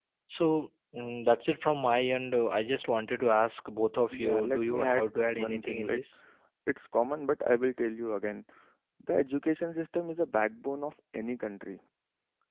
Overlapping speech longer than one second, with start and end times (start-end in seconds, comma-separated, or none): 4.1-6.0